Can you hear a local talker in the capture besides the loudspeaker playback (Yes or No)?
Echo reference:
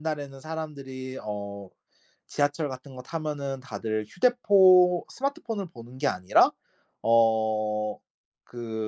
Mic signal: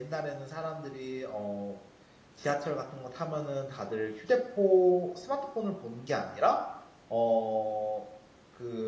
No